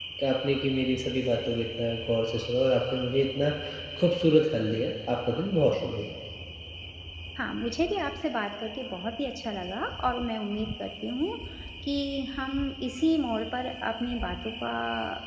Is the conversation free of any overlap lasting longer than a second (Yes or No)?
Yes